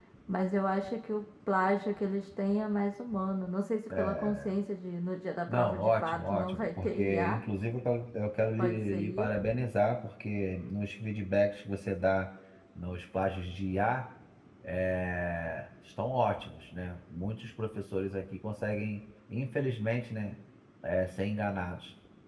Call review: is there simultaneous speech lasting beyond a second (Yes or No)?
Yes